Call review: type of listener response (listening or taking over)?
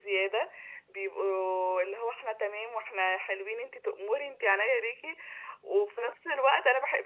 listening